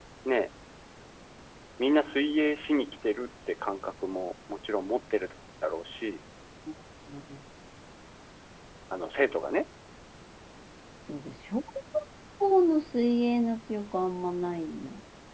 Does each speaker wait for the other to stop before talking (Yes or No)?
Yes